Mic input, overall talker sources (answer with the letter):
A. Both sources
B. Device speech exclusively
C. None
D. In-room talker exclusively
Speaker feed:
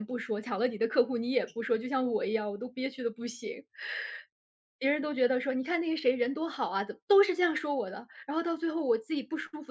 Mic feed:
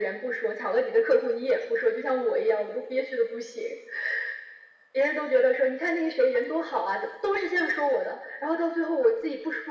B